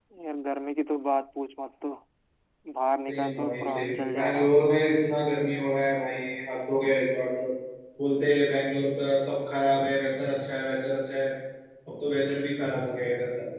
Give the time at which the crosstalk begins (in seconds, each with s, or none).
3.1 s